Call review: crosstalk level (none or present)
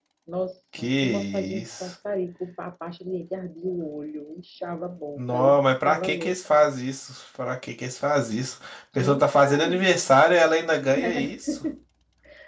present